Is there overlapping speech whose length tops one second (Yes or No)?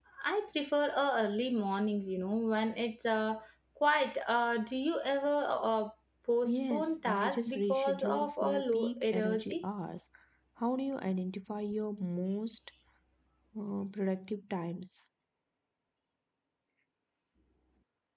Yes